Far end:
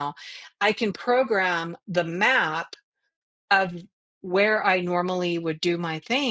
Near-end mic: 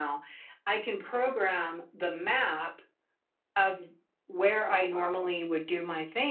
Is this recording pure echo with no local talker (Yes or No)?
No